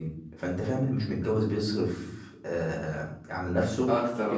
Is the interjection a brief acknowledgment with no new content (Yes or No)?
Yes